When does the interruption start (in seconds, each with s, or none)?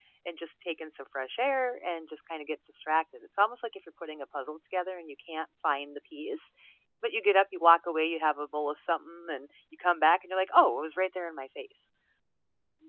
none